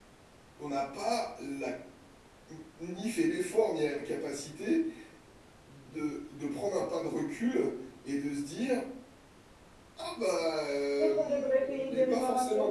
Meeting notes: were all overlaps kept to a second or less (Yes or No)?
No